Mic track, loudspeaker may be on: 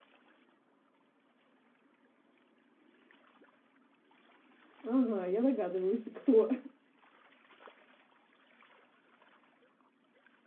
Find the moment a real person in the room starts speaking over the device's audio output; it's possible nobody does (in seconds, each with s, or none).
4.8 s